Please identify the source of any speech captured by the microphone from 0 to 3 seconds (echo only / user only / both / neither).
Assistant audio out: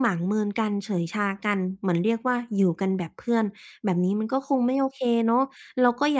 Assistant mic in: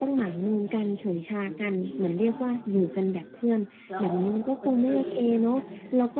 both